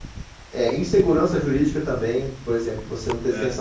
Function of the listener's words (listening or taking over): listening